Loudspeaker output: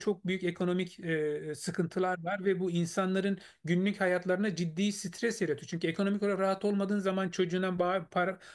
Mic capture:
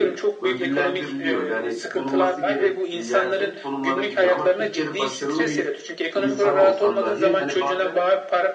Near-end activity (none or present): present